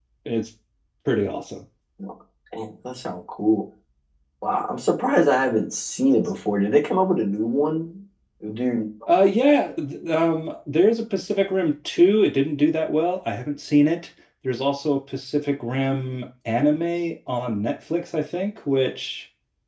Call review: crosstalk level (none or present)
none